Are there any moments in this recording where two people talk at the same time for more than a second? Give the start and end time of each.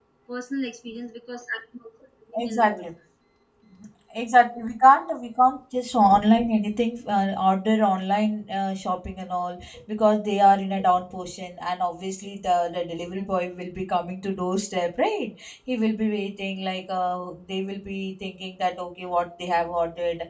none

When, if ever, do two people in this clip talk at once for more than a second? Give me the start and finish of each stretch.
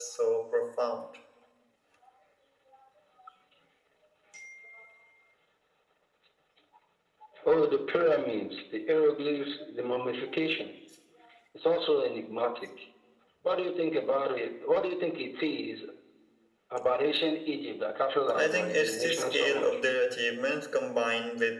18.4-19.6

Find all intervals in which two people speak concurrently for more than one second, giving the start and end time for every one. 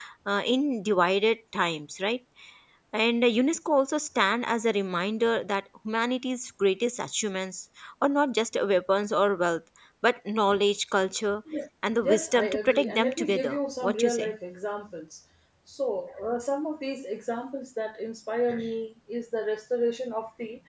12.0-14.3

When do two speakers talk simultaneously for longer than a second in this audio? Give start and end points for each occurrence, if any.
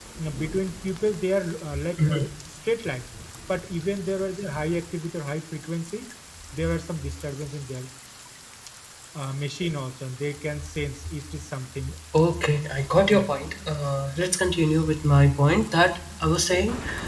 none

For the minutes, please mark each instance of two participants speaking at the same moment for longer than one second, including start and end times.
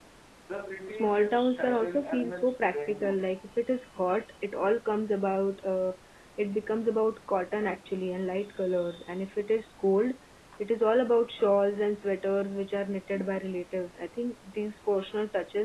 0.9-3.2

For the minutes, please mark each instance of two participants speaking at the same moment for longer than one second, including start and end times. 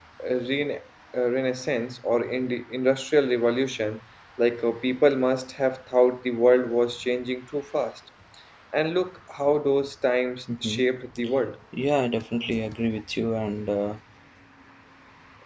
none

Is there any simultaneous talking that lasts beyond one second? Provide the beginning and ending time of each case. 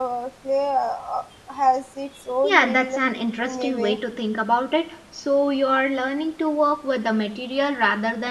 none

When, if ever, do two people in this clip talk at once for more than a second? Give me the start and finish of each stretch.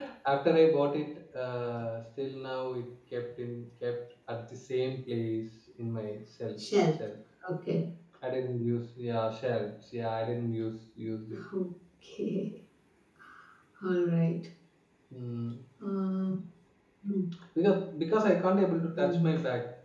none

